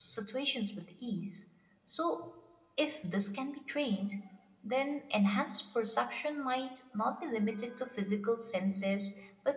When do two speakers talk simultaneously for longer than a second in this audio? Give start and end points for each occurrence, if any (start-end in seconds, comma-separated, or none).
none